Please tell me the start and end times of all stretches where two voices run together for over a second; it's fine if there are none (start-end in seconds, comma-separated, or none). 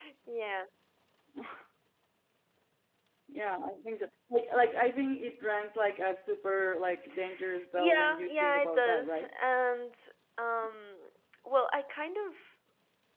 7.8-9.3